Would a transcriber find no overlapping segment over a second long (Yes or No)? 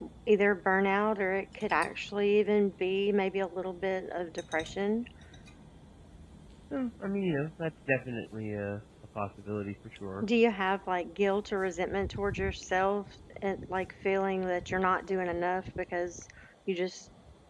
Yes